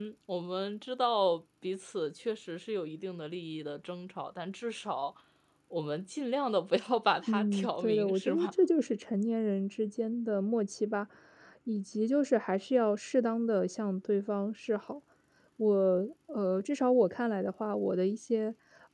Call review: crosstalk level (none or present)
present